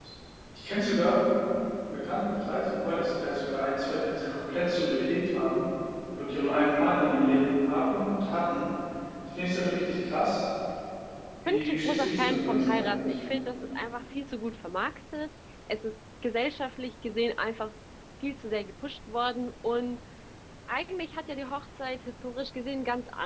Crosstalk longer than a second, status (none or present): present